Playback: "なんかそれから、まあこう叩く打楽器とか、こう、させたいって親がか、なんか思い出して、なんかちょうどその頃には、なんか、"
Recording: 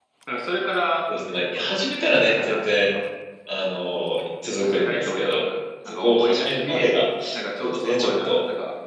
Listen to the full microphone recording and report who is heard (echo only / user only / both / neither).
both